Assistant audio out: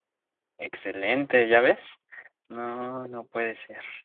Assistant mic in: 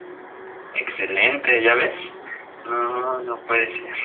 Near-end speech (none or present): none